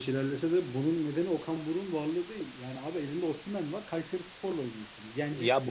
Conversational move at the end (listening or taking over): taking over